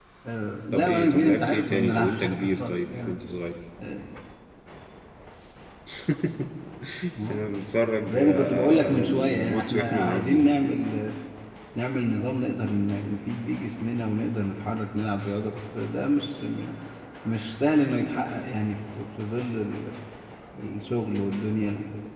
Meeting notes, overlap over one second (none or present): present